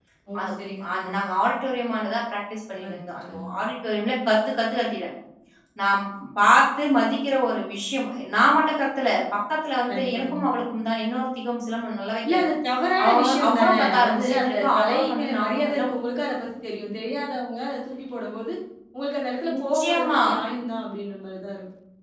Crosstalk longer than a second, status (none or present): present